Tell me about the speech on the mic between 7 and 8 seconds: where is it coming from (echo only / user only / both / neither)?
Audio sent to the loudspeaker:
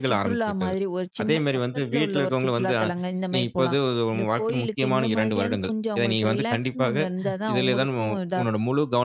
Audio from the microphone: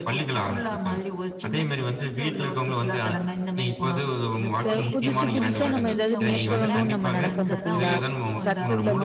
both